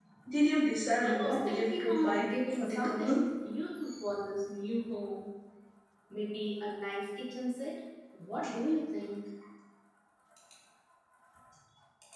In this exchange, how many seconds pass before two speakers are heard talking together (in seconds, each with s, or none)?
1.0 s